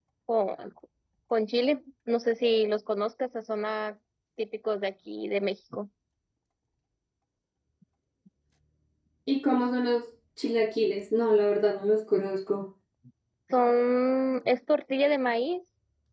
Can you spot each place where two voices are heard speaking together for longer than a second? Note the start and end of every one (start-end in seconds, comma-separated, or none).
none